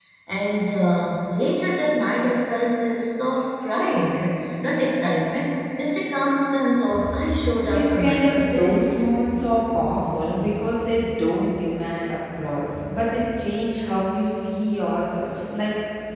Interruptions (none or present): present